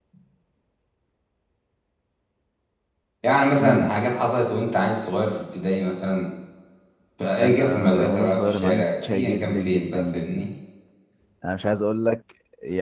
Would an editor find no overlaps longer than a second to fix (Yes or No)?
No